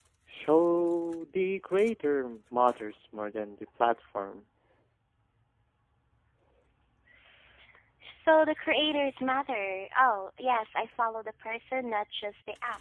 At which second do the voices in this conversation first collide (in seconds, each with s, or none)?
none